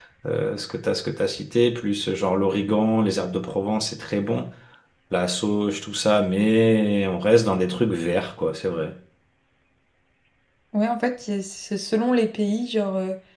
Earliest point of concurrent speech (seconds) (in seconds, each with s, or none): none